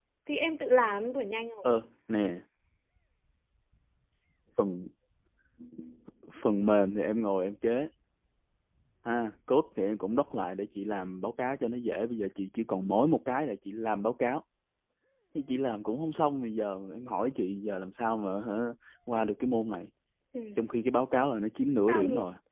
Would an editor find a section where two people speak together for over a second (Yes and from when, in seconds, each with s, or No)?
No